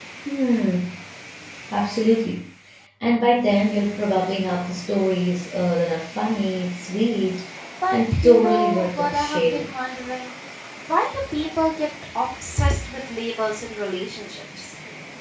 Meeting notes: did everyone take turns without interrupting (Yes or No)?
No